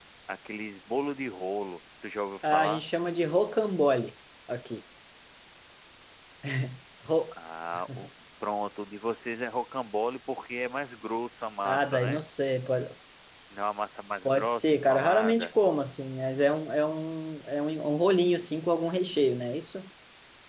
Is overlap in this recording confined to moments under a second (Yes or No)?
No